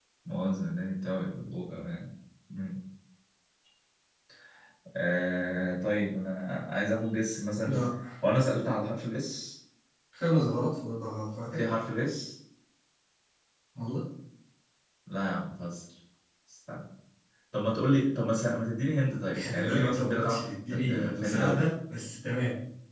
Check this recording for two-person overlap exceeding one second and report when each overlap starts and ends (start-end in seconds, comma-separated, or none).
19.4-21.7